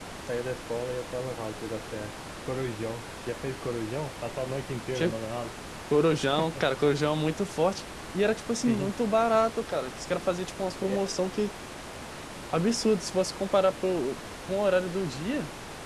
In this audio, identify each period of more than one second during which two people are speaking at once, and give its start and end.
none

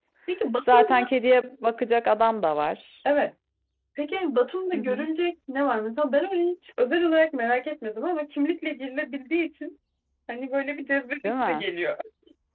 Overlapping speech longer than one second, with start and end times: none

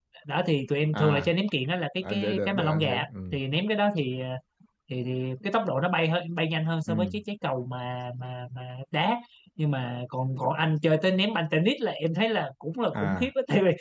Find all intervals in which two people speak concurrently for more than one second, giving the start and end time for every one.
2.0-3.4

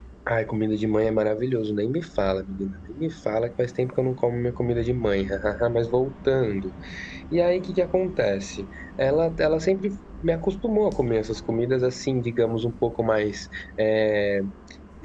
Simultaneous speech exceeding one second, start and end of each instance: none

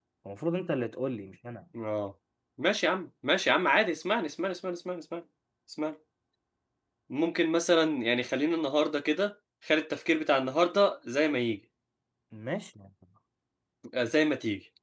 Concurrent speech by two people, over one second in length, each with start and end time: none

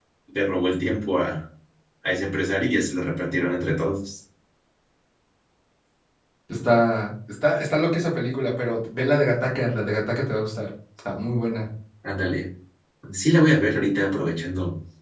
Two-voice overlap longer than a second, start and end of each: none

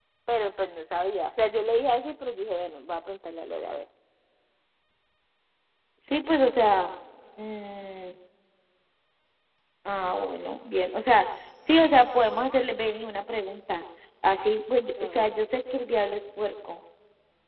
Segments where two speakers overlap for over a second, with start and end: none

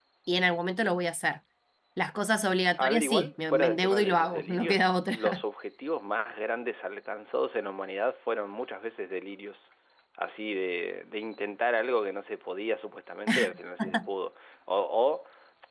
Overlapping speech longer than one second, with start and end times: 2.8-5.4

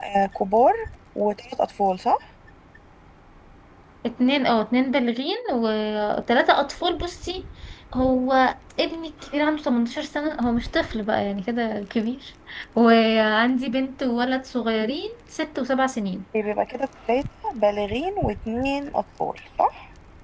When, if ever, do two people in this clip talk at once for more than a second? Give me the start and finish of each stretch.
none

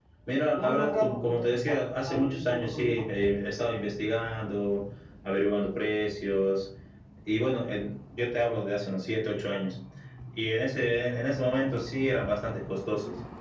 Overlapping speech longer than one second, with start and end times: 0.5-3.0

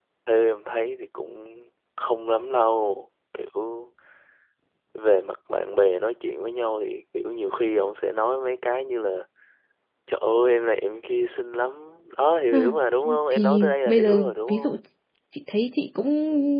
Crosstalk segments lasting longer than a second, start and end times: 13.3-14.8

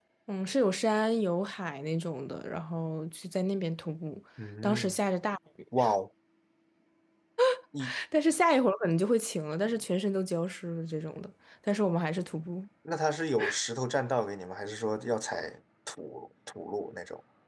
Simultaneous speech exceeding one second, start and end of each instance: none

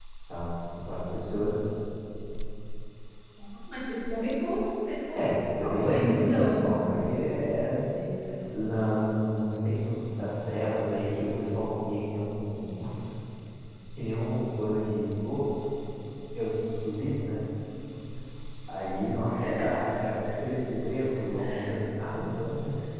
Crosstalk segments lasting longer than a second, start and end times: 5.2-6.6

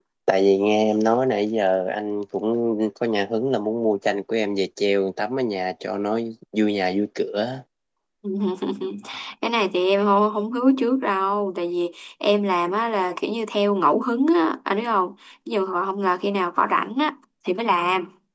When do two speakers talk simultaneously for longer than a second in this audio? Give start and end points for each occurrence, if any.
none

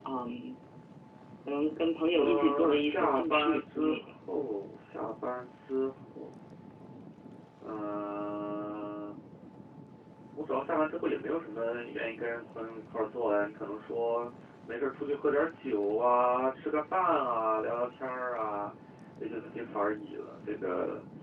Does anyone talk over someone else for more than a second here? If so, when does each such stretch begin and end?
2.1-4.0

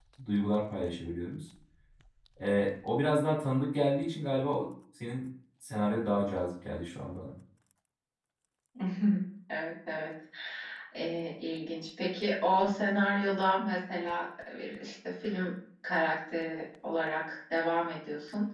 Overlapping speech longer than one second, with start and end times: none

